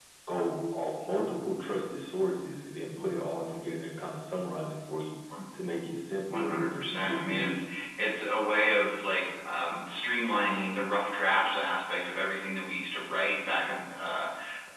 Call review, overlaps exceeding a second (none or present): present